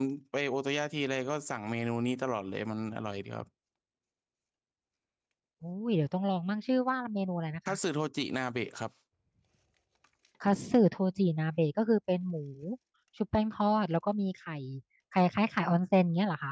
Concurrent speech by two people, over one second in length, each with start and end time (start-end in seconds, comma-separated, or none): none